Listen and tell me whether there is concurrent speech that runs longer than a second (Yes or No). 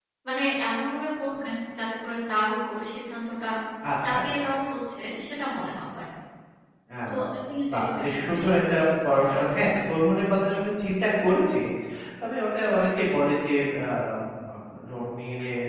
Yes